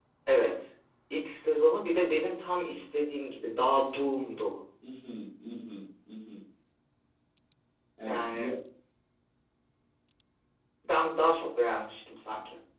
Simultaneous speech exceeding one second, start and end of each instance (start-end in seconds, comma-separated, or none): none